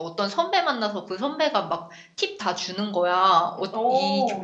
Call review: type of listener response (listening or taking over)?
listening